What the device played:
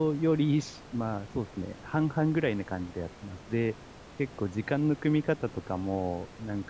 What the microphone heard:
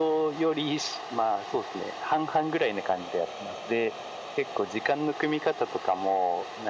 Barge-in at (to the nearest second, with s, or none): none